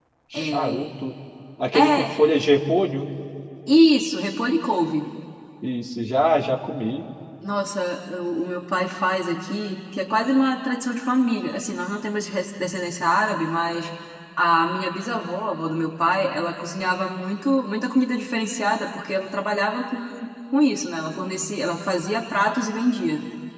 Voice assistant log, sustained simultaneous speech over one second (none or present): none